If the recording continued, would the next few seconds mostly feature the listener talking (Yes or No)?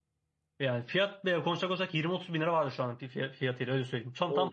Yes